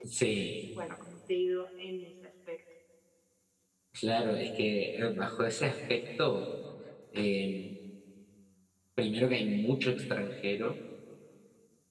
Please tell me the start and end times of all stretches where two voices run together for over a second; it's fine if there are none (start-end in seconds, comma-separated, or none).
none